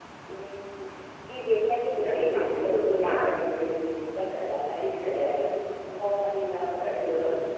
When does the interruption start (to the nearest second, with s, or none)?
2 s